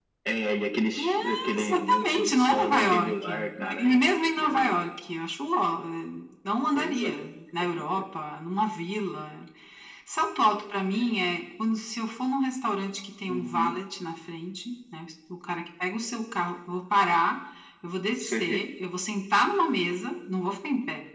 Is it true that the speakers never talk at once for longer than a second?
No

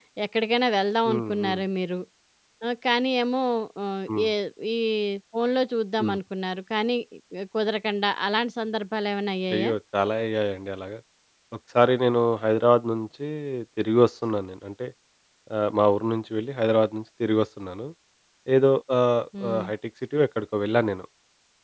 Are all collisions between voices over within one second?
Yes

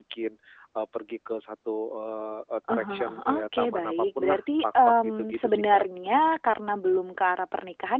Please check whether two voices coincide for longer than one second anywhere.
Yes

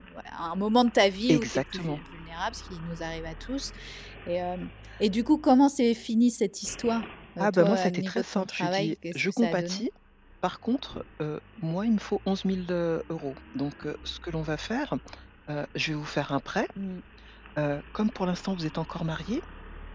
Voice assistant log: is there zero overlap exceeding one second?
No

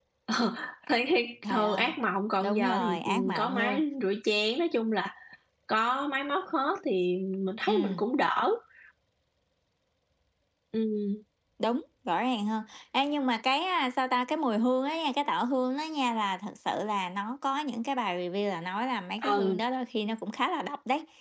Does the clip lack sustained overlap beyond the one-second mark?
No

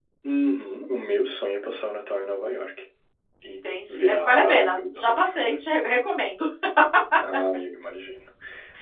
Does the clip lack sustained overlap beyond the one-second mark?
No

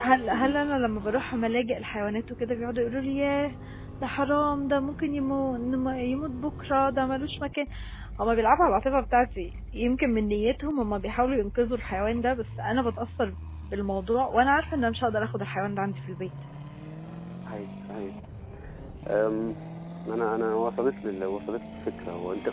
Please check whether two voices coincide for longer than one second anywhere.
No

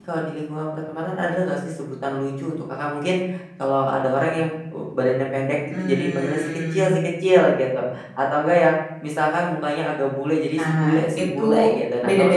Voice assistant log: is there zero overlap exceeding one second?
No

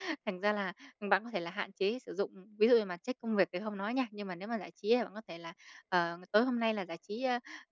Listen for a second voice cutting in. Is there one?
No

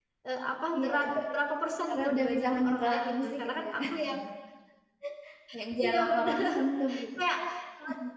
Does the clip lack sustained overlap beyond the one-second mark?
No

